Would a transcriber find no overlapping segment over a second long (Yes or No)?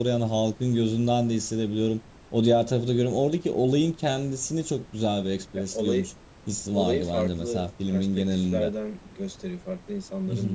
No